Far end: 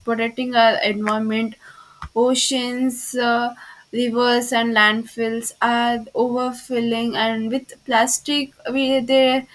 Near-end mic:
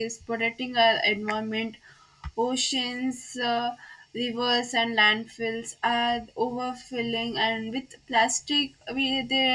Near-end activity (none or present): none